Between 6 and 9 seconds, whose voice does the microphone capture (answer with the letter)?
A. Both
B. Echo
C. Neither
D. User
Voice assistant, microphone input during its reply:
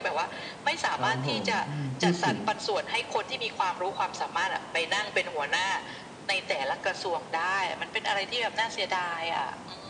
B